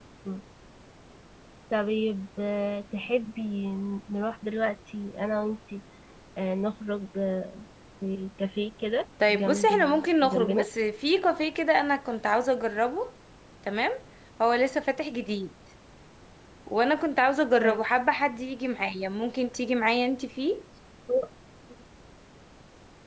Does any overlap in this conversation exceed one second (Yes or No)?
Yes